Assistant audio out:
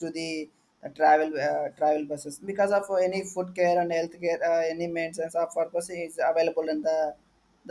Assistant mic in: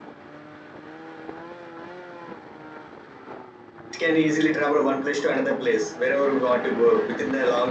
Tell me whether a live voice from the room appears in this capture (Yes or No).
Yes